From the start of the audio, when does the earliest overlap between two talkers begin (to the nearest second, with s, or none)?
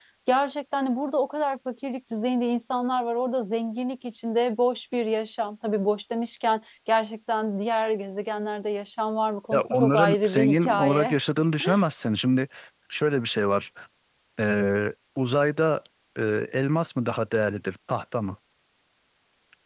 10 s